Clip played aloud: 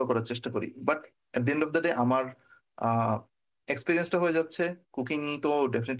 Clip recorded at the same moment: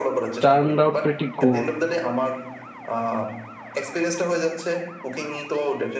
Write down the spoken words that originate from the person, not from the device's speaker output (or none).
টার্ন আউট প্রেটি গুড